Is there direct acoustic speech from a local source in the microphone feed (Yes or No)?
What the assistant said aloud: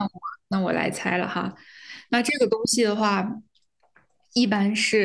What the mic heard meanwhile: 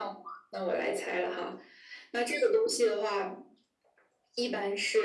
No